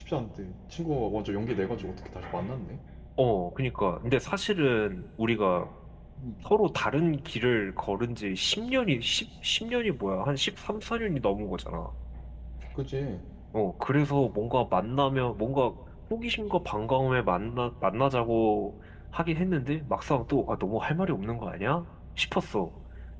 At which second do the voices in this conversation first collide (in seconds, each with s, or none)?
none